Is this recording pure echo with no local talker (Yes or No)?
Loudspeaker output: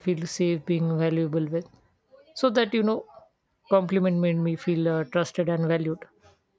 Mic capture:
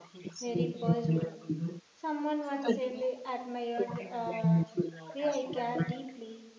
No